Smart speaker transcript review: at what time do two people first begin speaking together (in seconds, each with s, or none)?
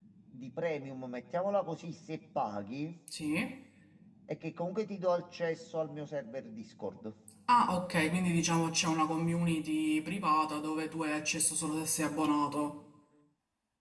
none